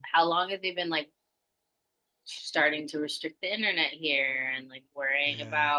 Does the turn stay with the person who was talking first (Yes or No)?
Yes